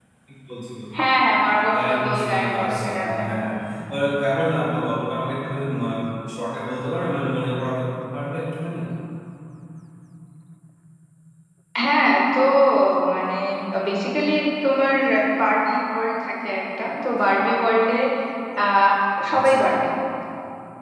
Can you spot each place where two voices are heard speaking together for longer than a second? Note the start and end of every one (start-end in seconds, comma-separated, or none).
1.8-3.2